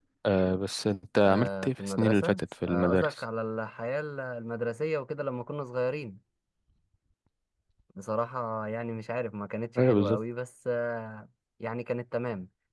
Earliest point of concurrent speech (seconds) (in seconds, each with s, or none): 1.2 s